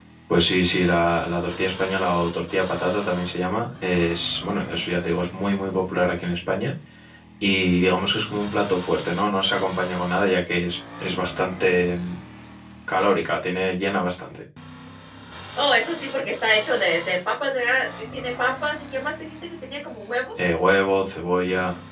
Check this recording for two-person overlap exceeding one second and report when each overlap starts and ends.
none

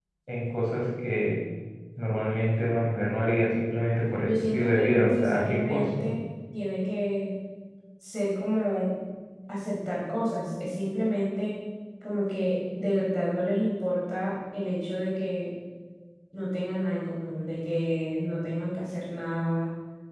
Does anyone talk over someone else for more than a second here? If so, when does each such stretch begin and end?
4.2-6.1

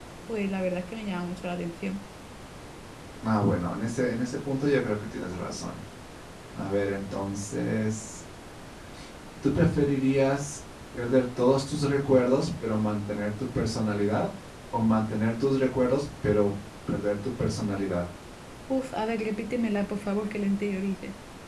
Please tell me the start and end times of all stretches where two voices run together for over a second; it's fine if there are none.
none

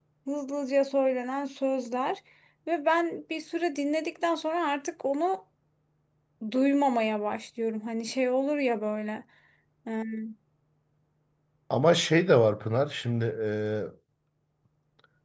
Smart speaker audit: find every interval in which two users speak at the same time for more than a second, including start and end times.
none

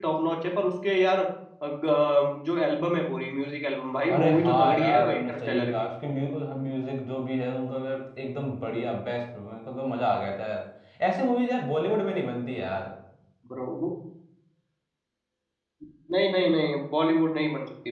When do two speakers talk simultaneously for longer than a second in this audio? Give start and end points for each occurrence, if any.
4.1-5.9

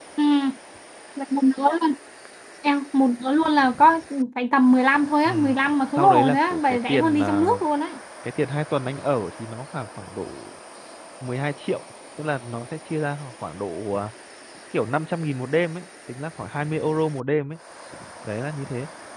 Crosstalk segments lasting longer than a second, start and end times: 6.0-7.4

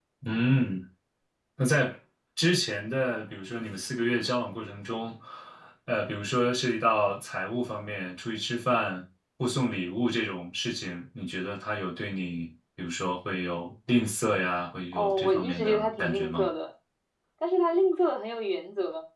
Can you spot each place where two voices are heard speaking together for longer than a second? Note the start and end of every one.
14.9-16.5

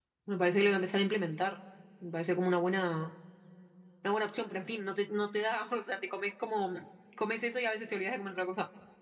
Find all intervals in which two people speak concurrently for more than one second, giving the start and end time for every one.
none

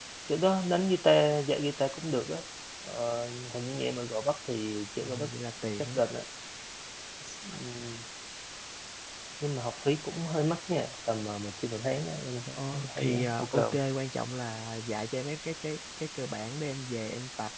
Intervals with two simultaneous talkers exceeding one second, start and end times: 12.5-13.8

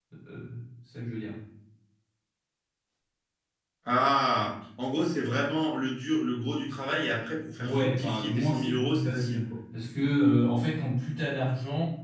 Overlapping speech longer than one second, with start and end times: 7.6-9.4

